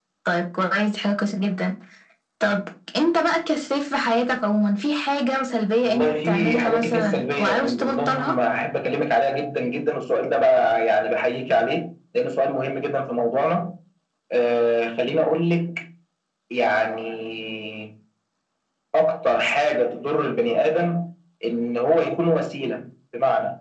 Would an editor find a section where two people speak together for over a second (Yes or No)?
Yes